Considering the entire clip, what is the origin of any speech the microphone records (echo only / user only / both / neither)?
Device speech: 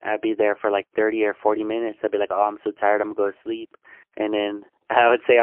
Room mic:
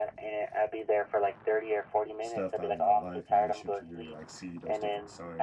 both